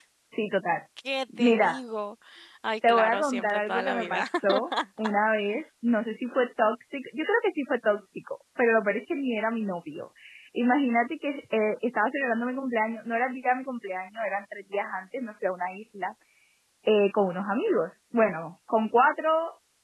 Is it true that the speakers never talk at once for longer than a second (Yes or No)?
No